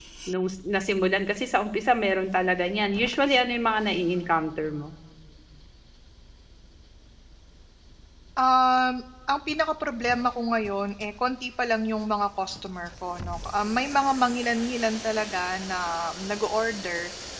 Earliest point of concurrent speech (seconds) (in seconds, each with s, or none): none